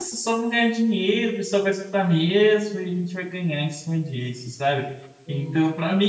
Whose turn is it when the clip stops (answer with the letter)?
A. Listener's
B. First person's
B